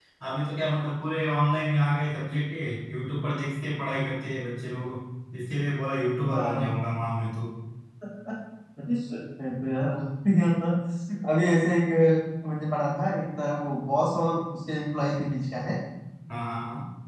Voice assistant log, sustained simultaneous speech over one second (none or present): none